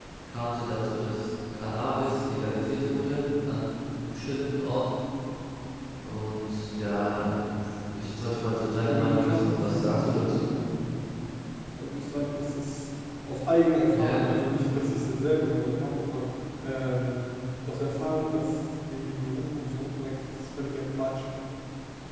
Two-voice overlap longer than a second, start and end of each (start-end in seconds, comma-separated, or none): 8.9-10.5